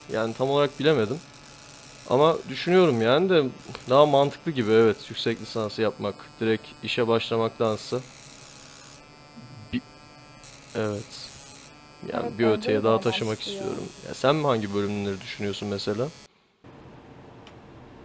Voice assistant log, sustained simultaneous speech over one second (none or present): present